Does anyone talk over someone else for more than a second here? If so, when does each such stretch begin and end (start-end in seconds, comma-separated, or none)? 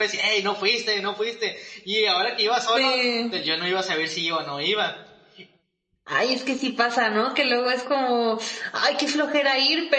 none